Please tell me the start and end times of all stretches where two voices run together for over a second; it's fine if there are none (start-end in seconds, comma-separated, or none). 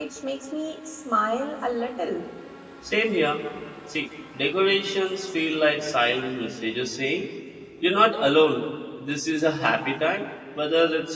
none